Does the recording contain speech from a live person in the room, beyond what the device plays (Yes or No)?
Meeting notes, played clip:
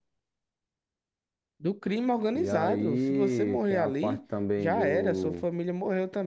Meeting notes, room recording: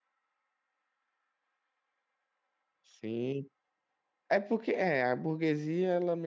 Yes